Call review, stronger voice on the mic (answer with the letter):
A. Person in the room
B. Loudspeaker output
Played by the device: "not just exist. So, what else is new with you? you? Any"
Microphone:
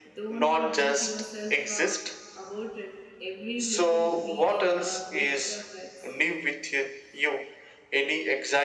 B